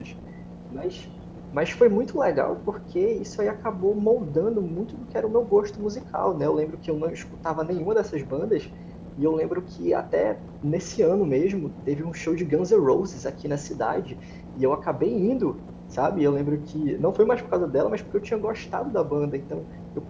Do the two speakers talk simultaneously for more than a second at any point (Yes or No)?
No